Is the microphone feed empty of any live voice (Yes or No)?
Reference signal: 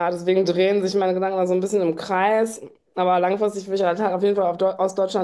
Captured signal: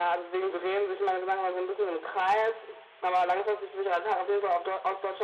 Yes